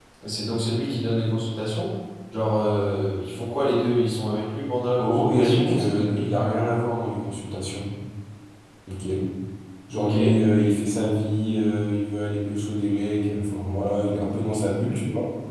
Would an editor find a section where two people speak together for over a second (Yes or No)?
Yes